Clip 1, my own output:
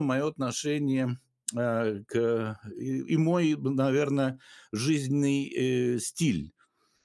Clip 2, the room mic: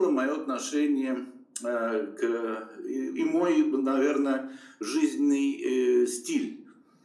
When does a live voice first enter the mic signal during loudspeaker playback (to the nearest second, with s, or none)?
none